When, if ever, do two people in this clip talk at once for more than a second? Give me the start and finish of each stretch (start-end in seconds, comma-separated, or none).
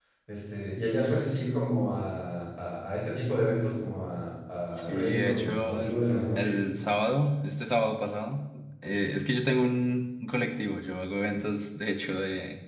4.7-5.9